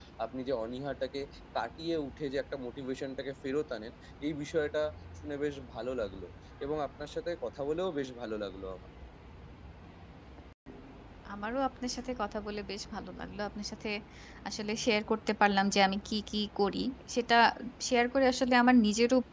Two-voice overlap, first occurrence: none

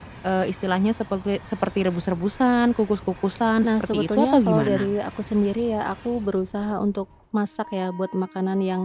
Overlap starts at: 3.6 s

